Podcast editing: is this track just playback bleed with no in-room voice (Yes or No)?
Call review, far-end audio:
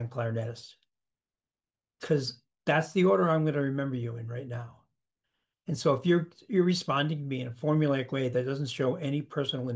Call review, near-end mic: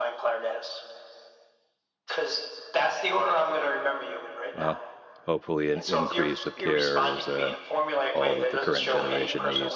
No